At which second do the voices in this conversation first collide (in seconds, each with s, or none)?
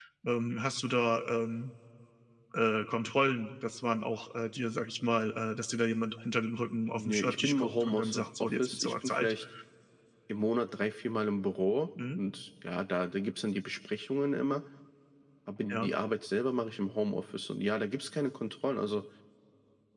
6.9 s